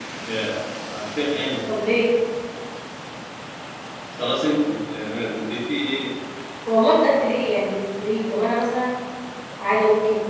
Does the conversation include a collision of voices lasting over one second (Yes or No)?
No